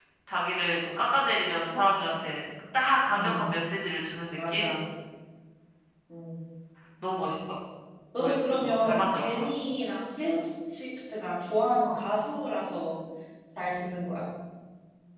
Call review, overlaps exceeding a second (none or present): present